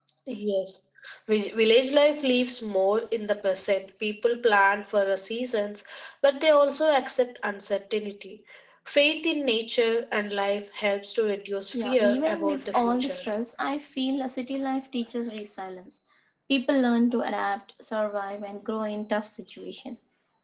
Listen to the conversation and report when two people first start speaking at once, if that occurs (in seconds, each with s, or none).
11.7 s